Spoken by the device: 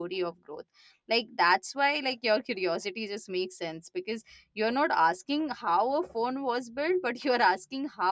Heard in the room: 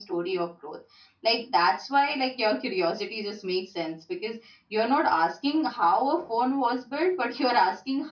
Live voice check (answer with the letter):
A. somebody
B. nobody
B